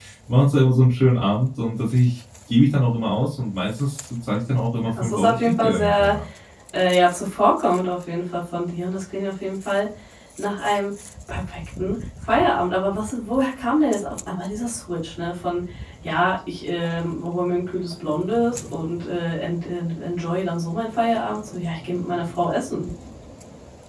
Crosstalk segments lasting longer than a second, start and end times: 4.9-6.2

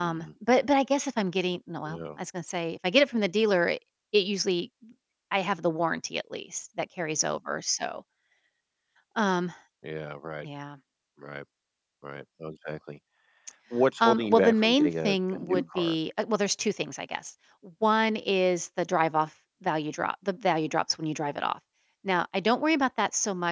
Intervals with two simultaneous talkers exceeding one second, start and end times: 14.0-16.0

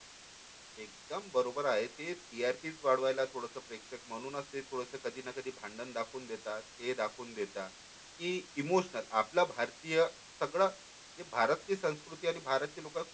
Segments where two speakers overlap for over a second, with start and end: none

